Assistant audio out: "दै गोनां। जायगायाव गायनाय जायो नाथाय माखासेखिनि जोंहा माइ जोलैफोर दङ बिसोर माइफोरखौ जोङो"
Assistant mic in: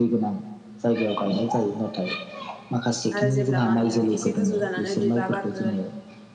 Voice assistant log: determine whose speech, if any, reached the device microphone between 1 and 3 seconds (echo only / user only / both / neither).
echo only